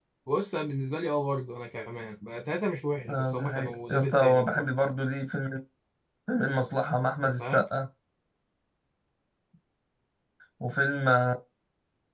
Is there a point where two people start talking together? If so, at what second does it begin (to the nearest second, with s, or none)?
3 s